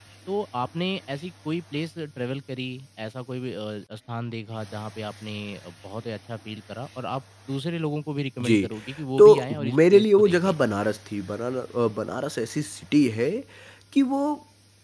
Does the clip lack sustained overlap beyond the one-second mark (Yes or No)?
No